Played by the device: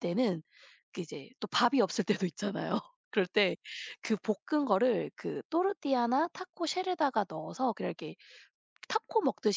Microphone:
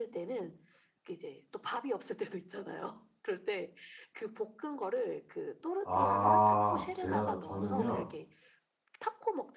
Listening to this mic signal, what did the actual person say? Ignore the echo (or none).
아 제가 저는요